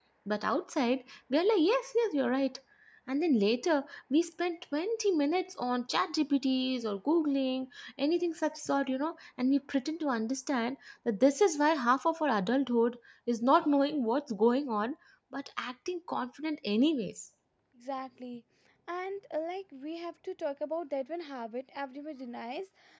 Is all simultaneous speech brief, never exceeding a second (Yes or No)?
Yes